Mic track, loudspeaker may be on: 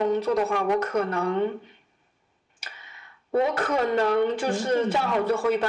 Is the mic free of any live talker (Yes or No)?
No